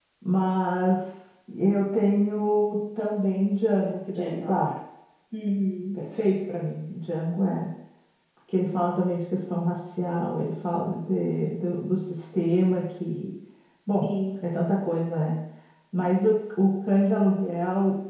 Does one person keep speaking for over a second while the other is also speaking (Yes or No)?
No